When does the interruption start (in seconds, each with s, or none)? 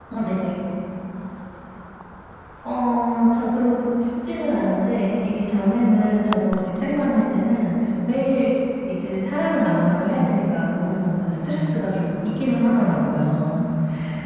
none